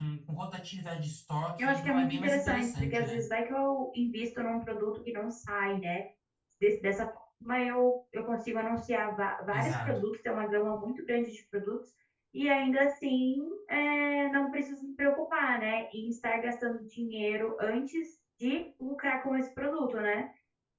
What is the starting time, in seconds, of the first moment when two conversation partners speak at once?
1.6 s

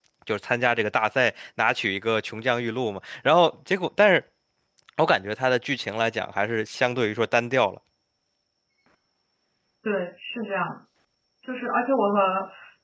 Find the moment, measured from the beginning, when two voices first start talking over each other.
none

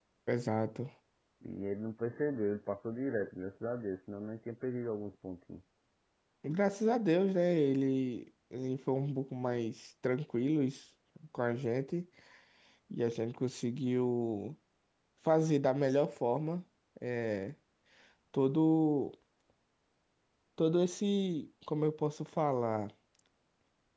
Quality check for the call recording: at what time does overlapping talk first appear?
none

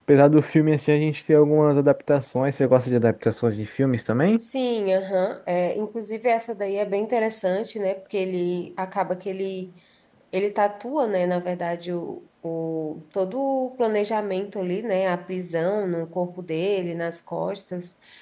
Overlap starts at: none

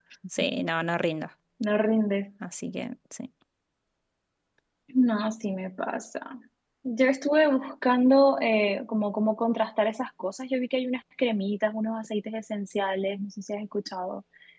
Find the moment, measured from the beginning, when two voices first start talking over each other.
none

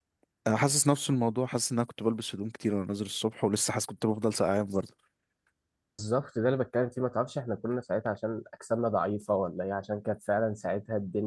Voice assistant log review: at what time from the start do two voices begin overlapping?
none

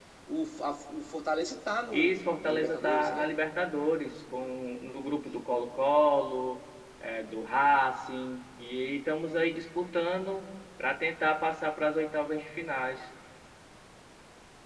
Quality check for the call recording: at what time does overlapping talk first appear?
1.9 s

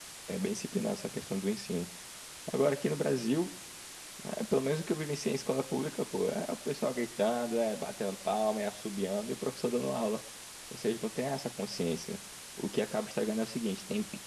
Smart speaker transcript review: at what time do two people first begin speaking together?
none

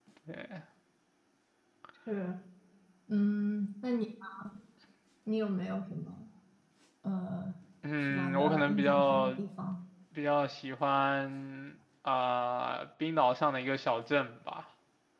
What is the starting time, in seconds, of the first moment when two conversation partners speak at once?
8.0 s

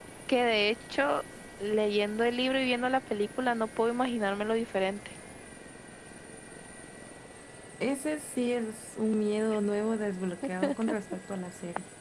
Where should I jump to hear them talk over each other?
none

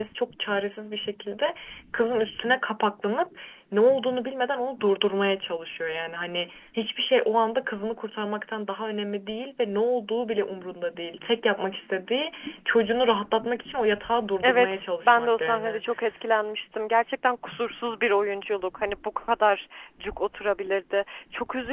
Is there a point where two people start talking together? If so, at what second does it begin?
14.4 s

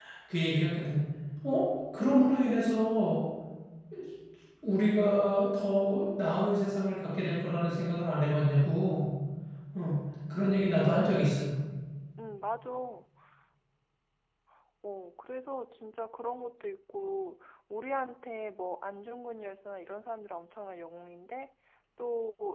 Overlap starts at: none

